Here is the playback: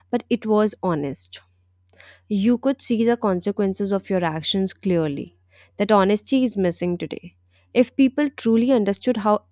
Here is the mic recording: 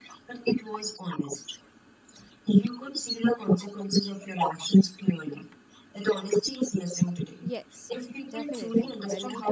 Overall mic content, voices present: both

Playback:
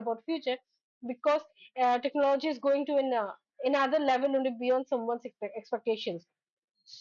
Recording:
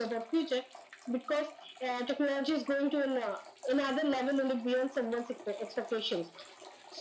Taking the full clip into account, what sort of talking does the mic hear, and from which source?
echo only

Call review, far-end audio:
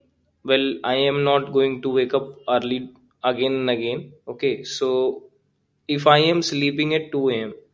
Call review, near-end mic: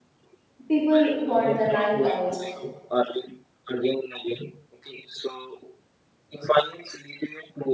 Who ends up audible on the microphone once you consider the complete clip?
both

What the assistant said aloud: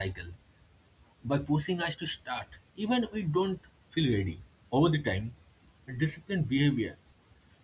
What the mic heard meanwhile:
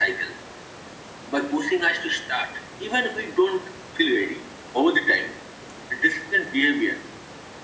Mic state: echo only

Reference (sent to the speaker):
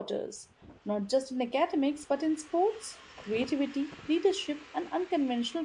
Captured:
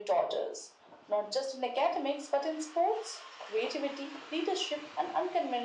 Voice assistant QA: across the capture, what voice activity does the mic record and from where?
echo only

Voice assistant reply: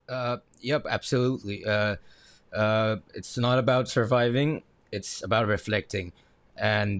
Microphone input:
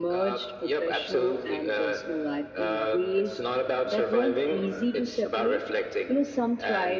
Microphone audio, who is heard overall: both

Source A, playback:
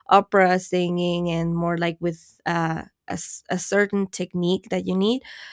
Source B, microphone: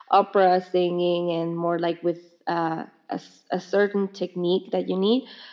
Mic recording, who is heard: echo only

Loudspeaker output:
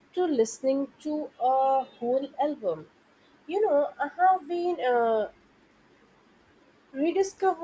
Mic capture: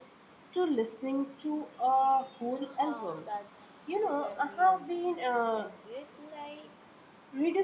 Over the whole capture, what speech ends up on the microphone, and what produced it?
both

